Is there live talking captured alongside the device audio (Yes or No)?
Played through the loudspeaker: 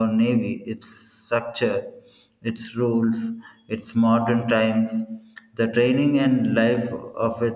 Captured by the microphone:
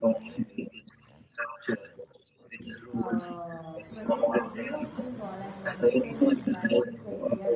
Yes